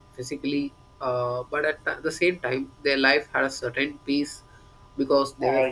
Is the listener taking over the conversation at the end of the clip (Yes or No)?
Yes